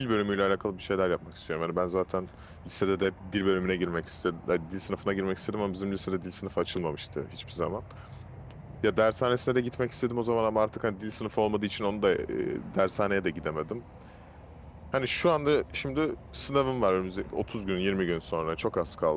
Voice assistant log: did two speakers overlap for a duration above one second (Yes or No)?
No